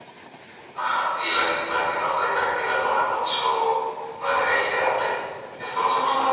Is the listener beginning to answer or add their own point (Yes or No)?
Yes